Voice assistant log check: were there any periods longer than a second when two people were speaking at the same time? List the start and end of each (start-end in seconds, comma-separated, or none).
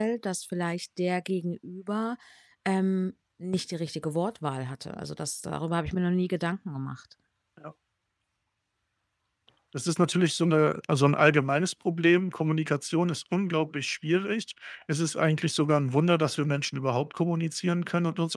none